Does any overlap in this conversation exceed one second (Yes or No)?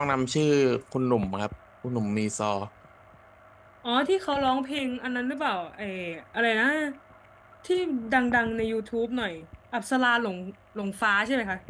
No